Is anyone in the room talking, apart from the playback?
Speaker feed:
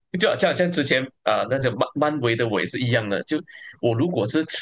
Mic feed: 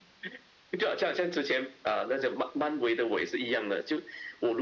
No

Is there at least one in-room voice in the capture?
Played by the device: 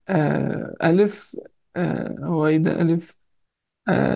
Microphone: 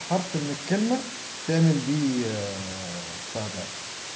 Yes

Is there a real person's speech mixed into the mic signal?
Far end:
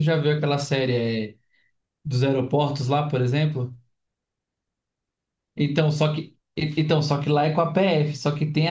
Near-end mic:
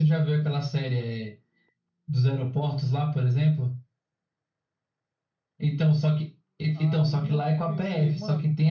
Yes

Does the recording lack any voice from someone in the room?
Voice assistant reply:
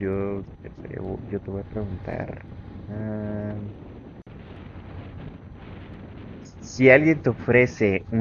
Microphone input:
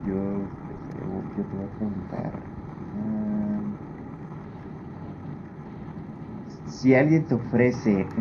Yes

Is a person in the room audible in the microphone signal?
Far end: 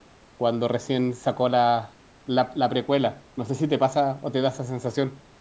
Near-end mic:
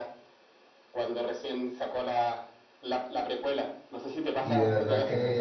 Yes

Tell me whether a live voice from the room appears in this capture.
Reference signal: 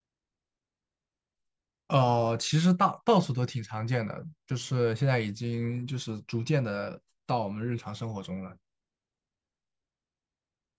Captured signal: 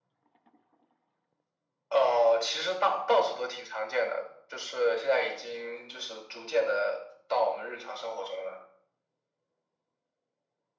No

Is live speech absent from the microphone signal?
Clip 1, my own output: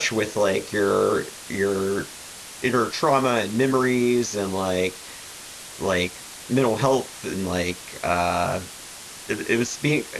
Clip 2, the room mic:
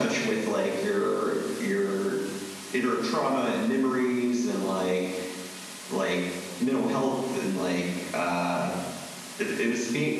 Yes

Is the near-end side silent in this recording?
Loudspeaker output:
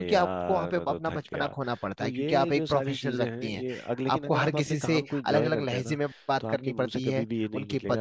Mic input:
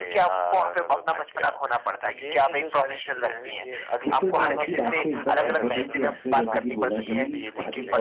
No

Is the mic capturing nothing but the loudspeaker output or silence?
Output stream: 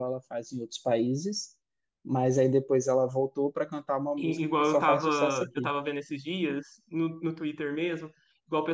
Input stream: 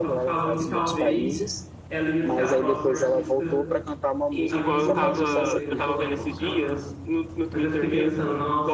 No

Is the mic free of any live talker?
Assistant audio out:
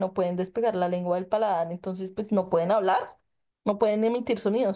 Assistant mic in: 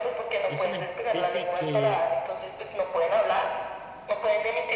No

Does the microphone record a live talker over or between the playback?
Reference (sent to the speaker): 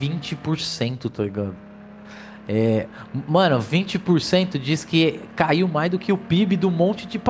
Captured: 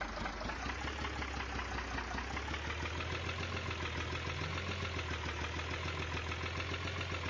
No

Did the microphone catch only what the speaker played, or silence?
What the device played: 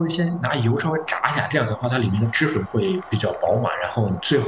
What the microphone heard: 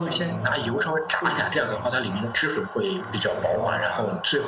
No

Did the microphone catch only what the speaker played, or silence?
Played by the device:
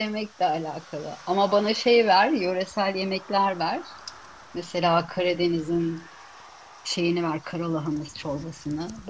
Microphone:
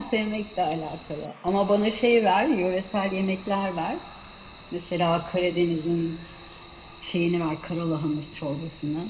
Yes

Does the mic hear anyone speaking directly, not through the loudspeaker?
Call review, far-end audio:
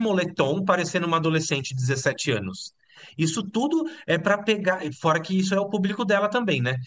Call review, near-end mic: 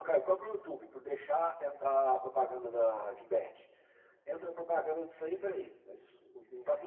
Yes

